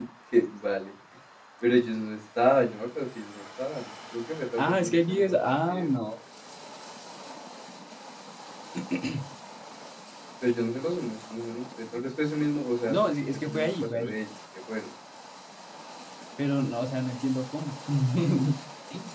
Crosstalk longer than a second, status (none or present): present